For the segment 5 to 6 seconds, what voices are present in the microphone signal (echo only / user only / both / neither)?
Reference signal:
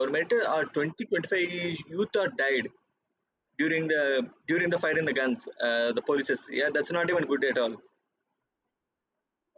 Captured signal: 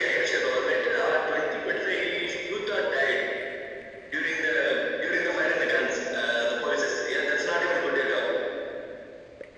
echo only